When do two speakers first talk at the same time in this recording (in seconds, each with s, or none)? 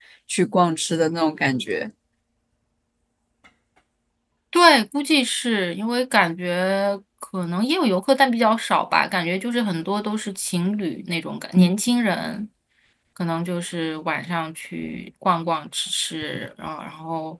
none